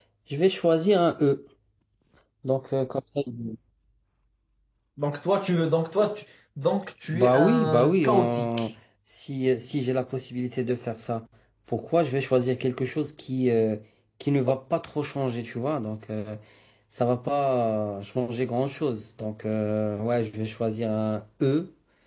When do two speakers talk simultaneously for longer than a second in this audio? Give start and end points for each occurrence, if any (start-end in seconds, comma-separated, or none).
7.1-8.7